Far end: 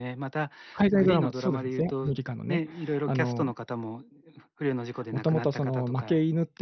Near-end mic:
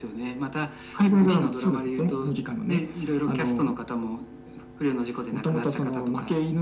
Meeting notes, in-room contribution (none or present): none